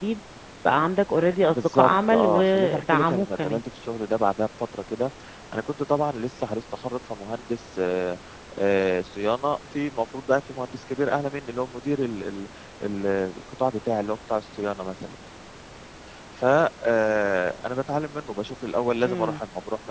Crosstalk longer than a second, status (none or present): present